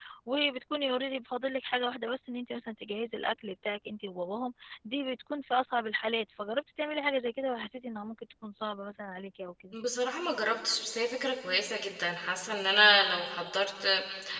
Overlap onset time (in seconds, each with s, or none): none